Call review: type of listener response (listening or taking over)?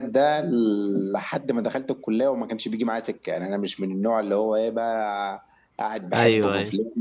listening